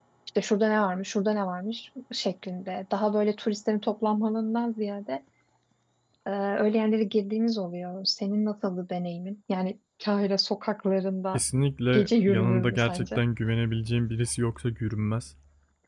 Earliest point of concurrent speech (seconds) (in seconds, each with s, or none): 11.9 s